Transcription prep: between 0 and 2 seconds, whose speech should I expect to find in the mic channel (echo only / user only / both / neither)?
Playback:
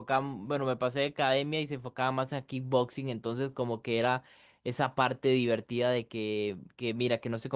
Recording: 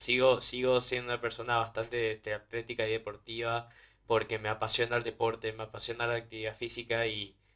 user only